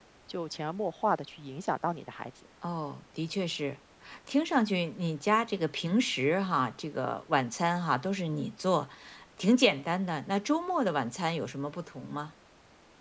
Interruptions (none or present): none